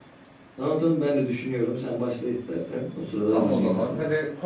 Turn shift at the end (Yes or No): Yes